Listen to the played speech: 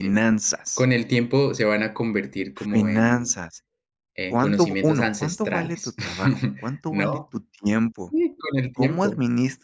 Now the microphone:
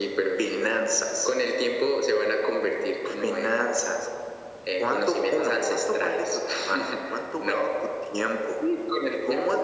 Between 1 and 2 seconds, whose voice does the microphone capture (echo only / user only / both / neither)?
echo only